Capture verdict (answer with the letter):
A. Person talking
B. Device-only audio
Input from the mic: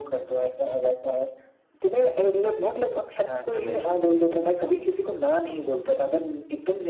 A